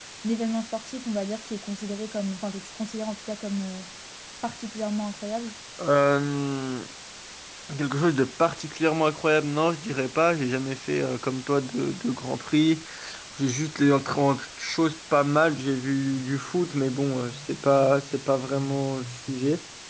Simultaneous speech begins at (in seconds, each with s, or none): none